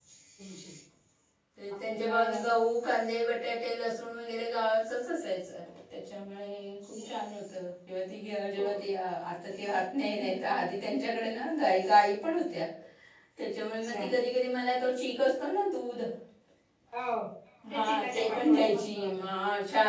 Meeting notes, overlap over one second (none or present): present